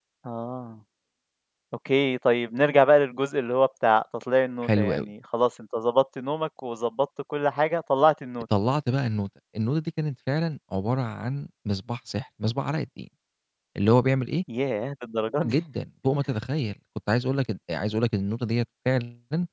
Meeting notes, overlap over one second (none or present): none